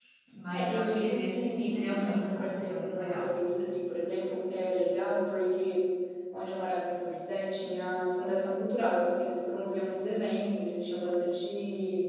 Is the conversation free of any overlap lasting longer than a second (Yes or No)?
No